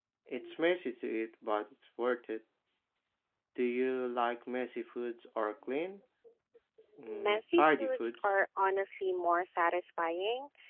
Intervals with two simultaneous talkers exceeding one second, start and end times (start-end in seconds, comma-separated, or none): 7.1-8.3